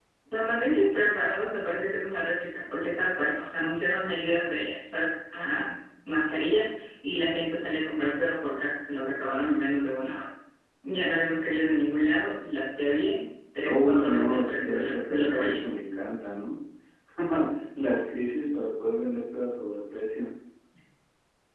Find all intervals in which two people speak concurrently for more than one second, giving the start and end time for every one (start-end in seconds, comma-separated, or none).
13.6-15.6